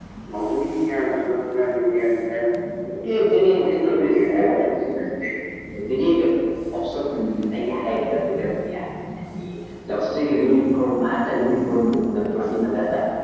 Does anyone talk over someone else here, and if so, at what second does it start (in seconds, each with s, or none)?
3.6 s